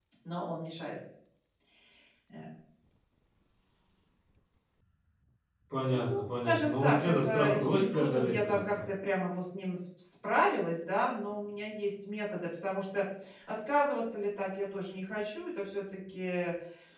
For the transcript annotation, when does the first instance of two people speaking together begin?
6 s

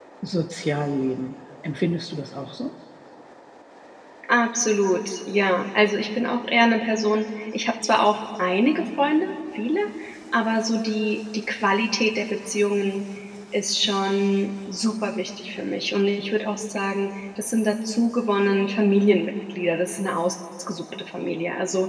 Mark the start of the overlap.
none

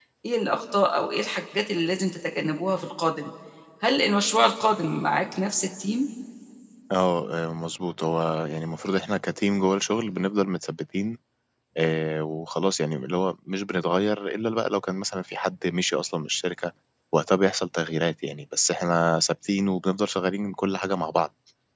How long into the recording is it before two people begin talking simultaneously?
none

